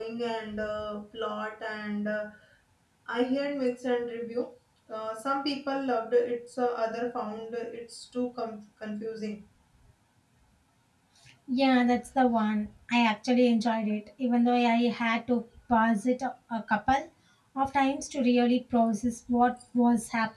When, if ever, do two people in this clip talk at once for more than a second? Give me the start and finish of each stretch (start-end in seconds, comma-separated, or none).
none